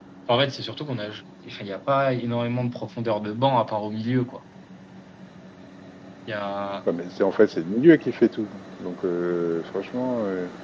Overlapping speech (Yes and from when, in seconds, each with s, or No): No